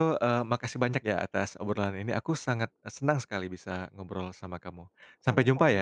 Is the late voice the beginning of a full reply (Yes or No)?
Yes